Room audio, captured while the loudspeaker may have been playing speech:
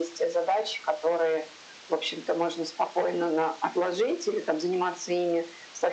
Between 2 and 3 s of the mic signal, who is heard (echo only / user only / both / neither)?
echo only